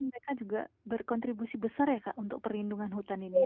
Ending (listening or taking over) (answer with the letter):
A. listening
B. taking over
B